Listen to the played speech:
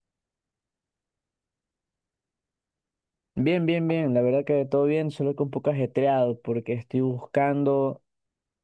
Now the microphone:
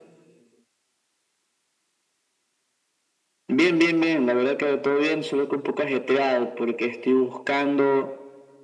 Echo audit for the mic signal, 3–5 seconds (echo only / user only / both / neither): echo only